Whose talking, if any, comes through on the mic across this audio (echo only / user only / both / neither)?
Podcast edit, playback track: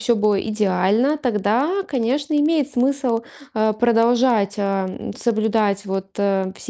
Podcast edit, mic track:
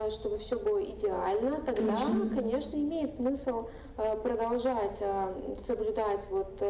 both